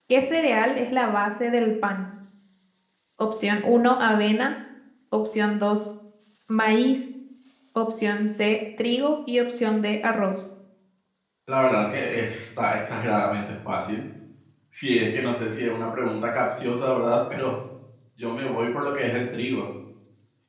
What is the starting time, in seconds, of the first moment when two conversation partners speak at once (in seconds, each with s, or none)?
none